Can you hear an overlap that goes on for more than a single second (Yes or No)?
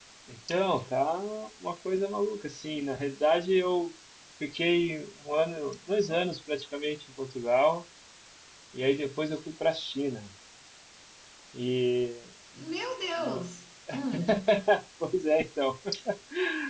No